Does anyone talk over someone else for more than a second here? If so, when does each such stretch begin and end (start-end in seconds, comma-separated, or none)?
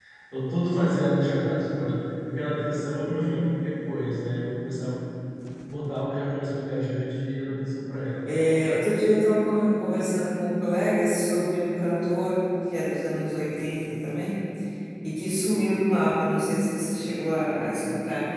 none